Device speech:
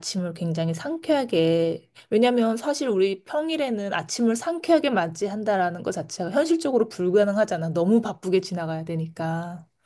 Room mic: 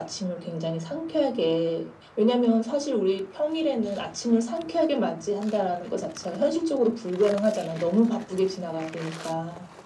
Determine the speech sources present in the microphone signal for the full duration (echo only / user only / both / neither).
echo only